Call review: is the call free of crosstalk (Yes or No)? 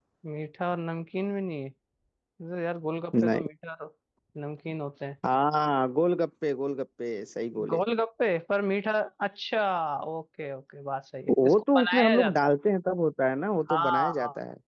No